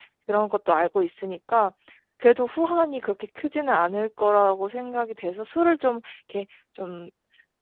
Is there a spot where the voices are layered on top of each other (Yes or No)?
No